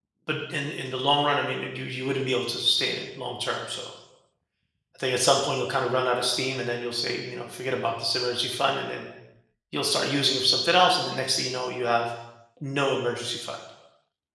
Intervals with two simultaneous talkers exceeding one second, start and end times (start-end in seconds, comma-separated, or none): none